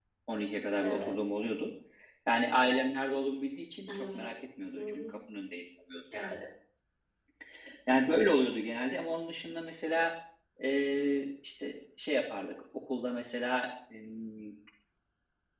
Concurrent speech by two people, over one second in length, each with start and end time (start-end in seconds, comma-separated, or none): none